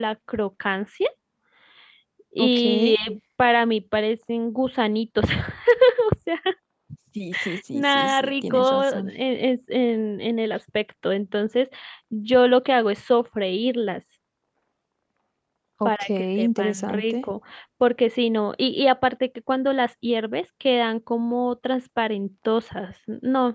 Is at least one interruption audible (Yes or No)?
Yes